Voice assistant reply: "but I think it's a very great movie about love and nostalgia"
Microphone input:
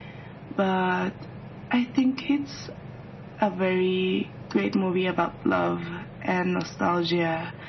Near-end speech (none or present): none